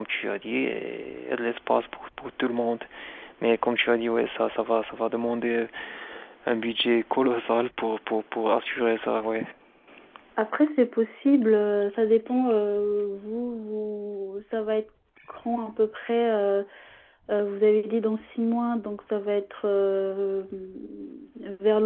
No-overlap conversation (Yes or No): Yes